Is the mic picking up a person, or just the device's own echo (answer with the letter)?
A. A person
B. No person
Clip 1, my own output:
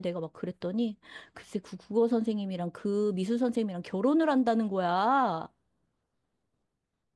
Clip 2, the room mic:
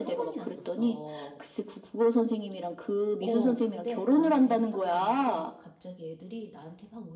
A